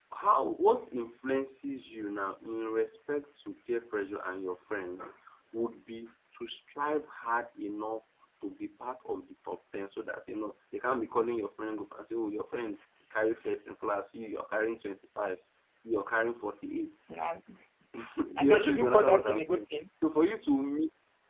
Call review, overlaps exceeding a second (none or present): present